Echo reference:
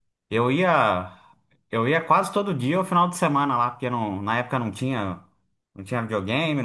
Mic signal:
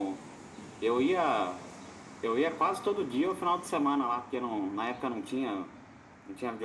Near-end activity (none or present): none